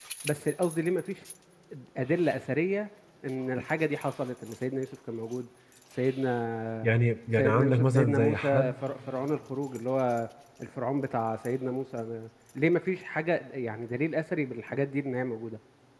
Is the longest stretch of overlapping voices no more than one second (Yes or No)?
No